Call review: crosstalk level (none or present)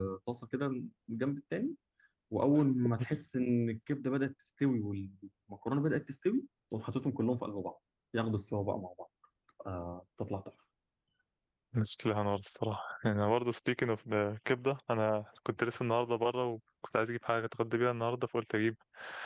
none